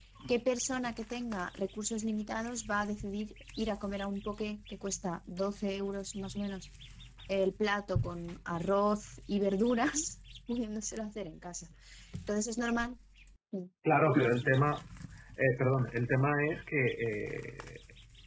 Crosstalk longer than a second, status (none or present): none